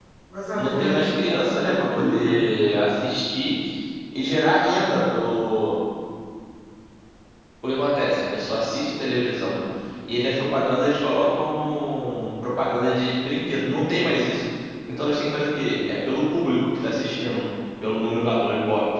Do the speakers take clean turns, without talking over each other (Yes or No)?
No